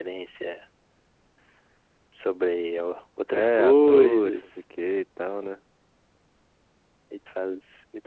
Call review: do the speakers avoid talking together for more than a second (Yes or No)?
No